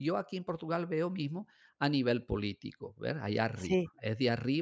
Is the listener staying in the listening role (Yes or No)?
Yes